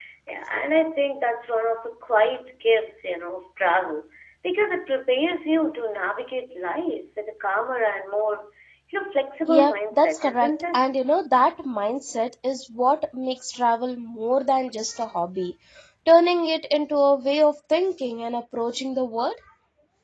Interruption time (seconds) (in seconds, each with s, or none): 9.5 s